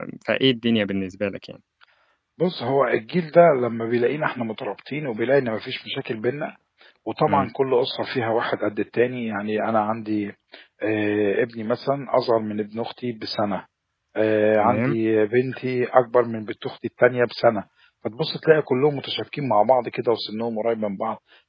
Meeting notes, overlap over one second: none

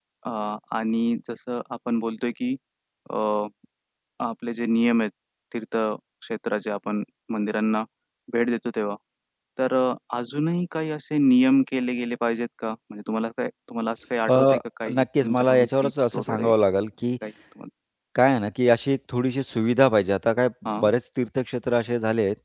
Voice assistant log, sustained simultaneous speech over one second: present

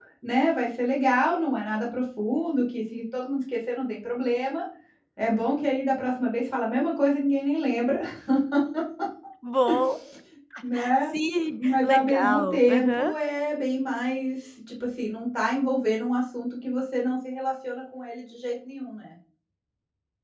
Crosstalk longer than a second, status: present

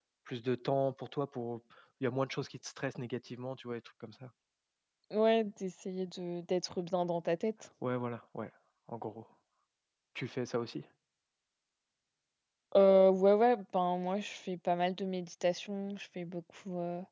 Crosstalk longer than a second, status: none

